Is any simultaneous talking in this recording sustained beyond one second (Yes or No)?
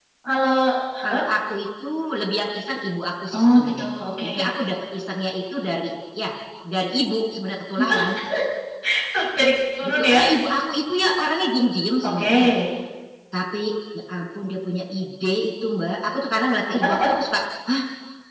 No